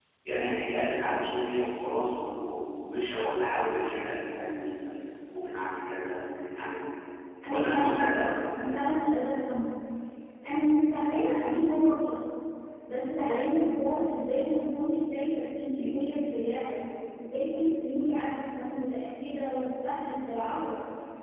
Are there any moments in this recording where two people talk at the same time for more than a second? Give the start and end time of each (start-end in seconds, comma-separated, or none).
7.5-8.8